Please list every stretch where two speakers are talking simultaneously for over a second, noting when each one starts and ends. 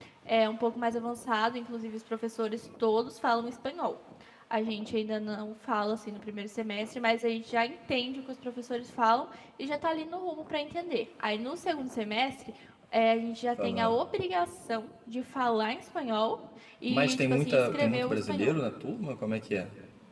16.9-18.6

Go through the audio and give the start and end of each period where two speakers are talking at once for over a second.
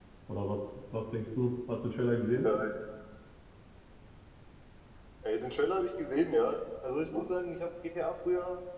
none

